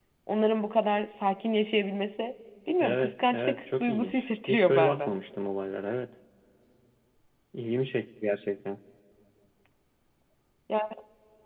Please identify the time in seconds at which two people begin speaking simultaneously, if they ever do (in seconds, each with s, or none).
2.8 s